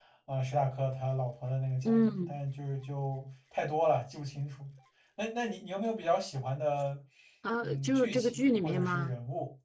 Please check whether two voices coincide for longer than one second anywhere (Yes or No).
Yes